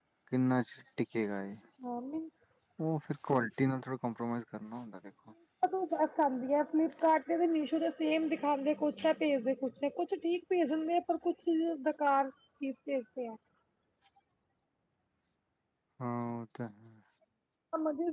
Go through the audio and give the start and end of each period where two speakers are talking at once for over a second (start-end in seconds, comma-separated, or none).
none